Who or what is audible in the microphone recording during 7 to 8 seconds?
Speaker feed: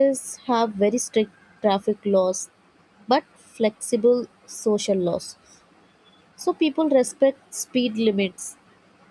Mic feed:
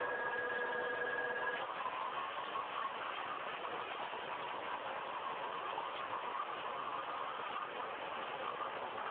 neither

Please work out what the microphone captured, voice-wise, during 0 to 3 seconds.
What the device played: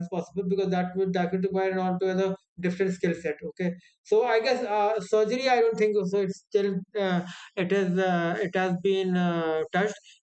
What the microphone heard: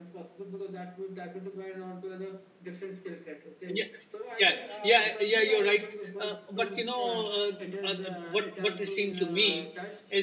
echo only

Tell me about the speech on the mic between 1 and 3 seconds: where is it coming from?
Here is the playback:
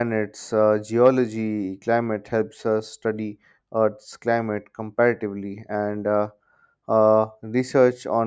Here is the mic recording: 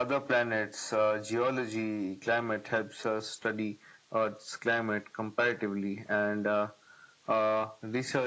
echo only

